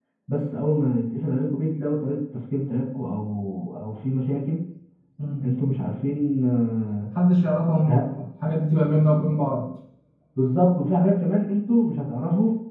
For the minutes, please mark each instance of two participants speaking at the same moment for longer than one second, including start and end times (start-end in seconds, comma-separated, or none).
none